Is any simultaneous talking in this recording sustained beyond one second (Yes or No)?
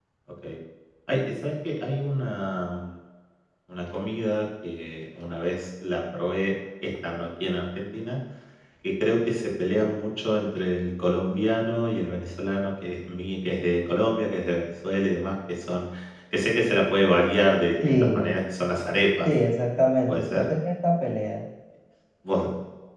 No